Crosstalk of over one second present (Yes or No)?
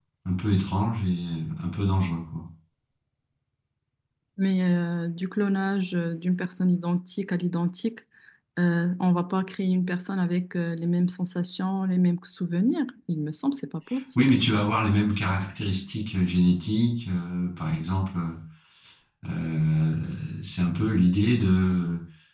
No